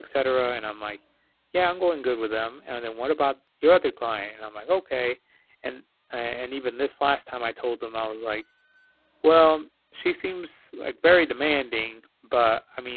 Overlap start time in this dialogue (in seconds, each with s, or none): none